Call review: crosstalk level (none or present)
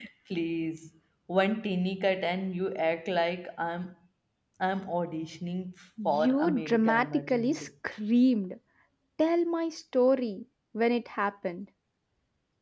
present